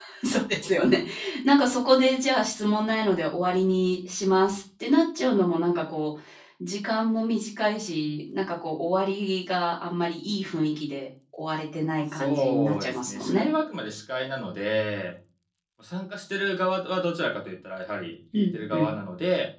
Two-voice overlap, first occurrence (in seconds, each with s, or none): 12.1 s